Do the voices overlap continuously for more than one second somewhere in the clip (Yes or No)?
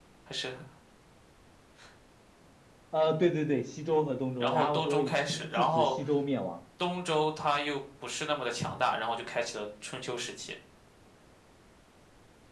Yes